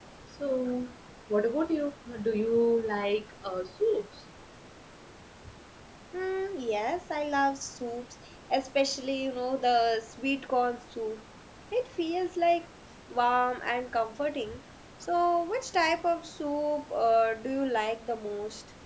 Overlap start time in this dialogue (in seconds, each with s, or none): none